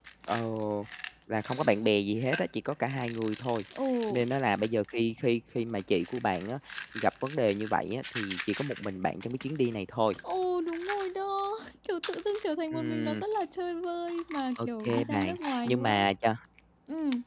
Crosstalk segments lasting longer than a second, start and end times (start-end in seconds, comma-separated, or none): 14.7-16.1